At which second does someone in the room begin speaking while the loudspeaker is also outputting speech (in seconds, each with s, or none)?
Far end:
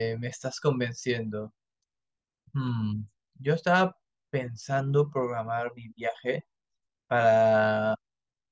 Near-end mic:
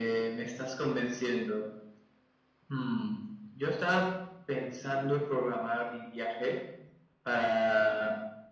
none